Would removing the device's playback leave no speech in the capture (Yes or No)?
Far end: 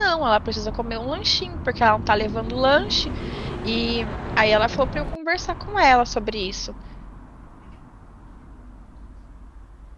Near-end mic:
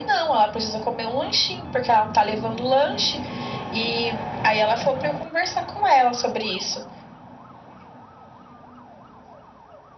Yes